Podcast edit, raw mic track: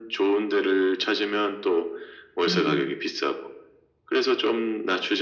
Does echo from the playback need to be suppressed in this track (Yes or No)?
Yes